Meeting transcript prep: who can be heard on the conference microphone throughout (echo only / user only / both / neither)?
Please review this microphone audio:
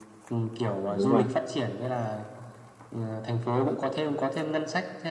both